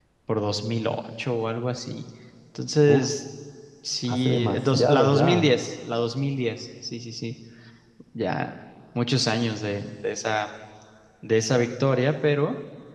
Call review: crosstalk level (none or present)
present